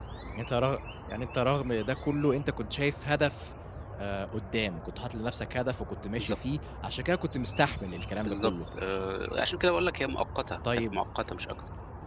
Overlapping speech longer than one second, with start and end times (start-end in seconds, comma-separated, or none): none